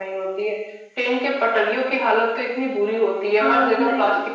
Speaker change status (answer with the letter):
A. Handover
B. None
B